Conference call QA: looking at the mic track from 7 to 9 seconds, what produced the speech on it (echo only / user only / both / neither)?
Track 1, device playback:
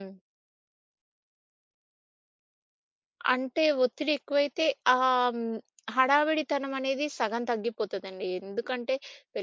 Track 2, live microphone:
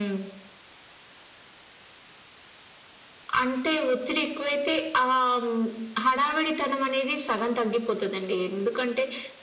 echo only